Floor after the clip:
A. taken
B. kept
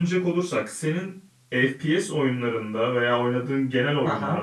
B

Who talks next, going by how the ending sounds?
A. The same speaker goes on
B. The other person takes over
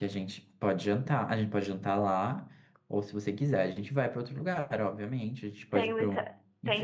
B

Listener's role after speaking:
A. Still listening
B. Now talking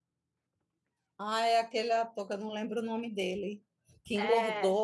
A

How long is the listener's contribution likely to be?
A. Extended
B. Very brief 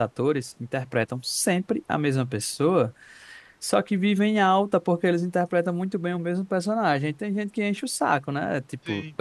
B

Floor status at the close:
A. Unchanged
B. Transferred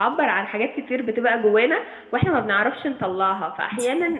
A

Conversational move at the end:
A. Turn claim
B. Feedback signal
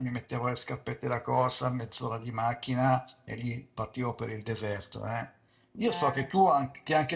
B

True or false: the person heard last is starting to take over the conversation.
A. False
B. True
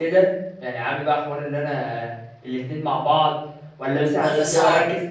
A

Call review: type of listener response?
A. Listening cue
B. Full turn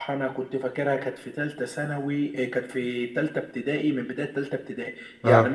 A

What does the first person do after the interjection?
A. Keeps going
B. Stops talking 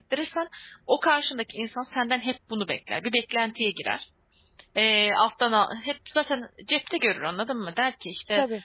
A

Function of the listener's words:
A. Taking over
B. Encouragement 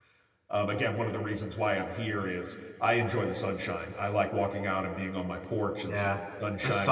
A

